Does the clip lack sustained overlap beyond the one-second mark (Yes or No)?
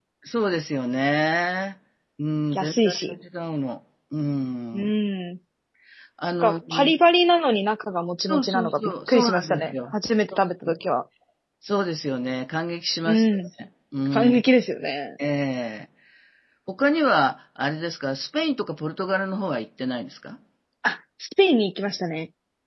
No